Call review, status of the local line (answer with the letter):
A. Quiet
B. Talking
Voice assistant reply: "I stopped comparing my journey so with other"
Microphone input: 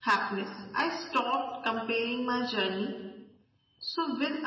A